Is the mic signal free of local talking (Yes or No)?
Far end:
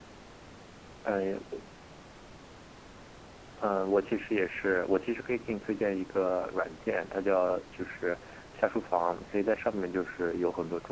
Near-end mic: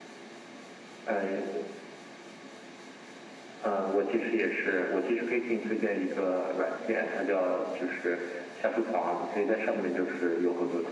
Yes